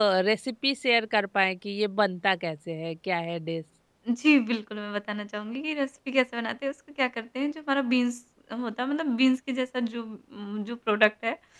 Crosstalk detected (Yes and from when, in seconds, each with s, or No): No